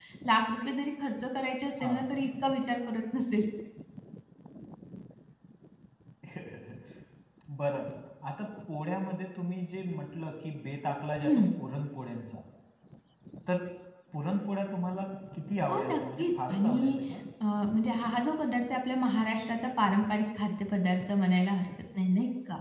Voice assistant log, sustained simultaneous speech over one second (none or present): present